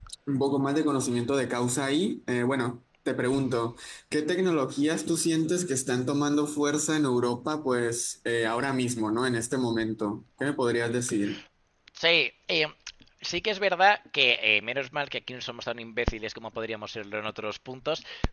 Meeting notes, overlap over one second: none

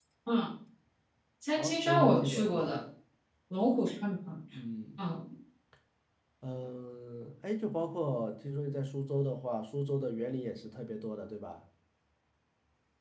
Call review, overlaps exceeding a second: present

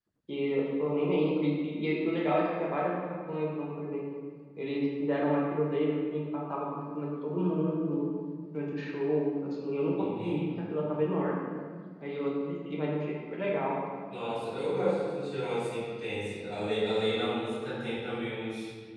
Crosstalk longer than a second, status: none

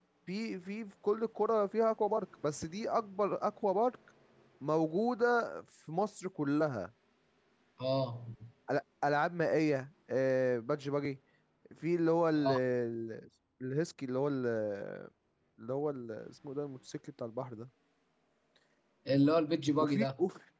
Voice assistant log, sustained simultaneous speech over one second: none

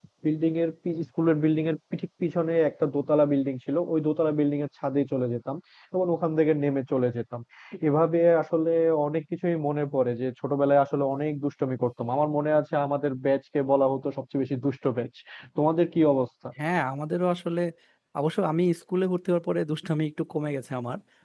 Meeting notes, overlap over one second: none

